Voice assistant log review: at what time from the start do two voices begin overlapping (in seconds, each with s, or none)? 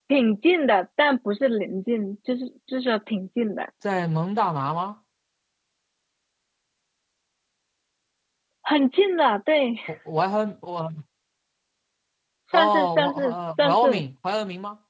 12.5 s